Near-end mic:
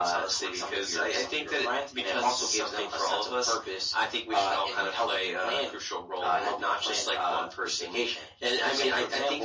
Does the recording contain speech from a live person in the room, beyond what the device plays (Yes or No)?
No